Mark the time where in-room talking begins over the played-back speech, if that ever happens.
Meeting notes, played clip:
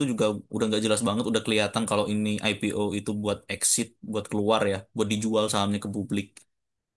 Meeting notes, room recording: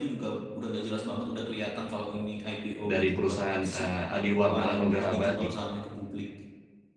2.9 s

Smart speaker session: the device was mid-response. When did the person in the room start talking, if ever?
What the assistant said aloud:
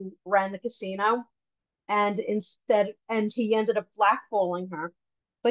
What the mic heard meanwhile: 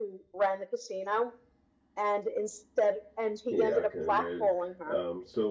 3.5 s

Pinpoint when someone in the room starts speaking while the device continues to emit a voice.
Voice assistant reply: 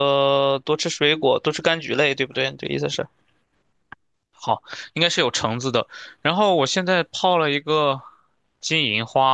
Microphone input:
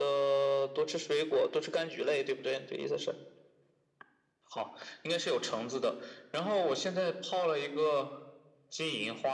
none

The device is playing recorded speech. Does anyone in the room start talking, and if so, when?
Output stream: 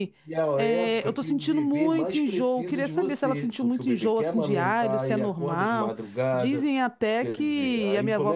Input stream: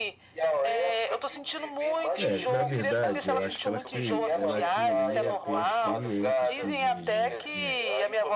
2.2 s

